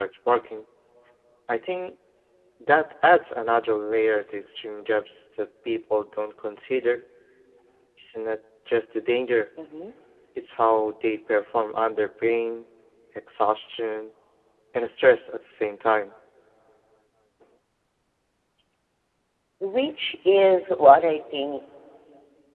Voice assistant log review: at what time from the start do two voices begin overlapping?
none

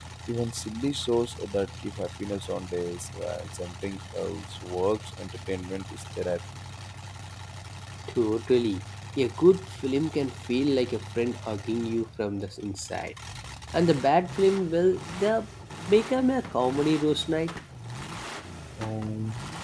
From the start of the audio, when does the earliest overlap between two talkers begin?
none

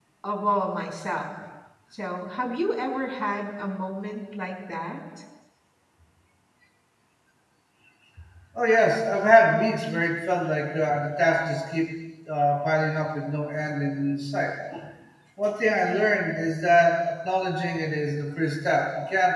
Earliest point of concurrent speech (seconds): none

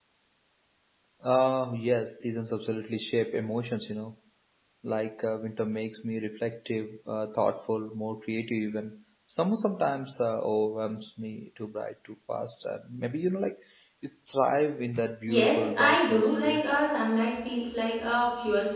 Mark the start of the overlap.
15.3 s

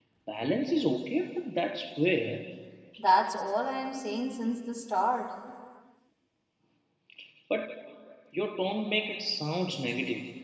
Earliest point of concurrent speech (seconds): none

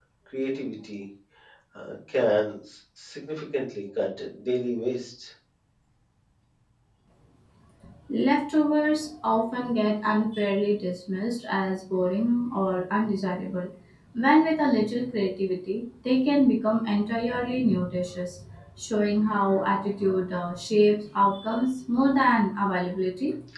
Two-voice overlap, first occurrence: none

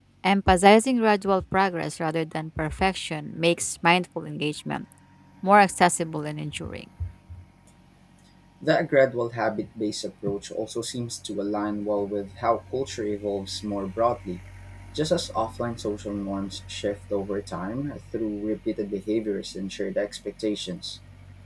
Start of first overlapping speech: none

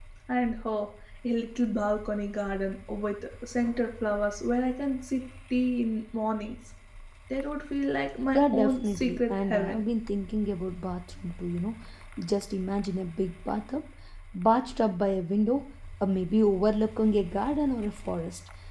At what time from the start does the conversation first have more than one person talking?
8.3 s

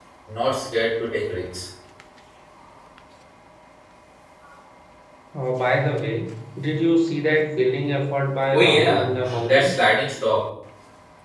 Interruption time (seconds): 8.5 s

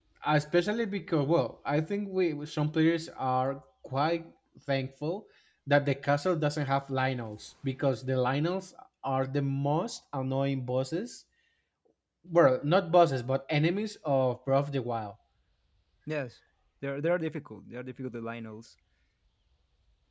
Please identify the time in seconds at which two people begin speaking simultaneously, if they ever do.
none

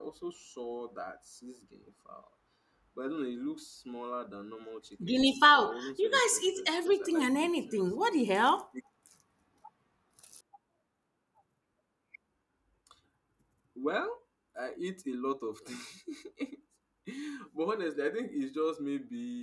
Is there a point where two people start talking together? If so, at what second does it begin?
5.0 s

